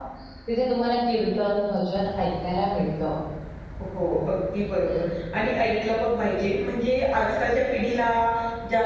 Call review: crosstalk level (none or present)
none